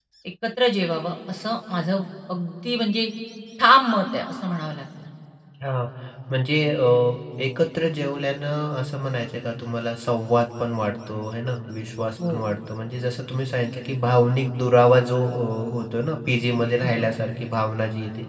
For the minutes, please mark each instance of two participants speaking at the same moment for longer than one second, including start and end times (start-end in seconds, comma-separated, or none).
none